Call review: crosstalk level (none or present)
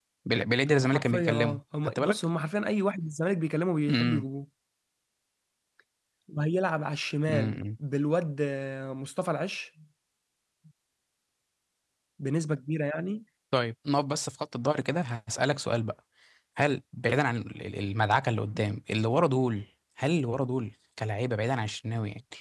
present